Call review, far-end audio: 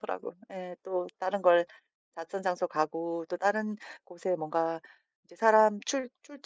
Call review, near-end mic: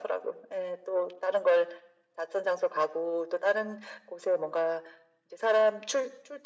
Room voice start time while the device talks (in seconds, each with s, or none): none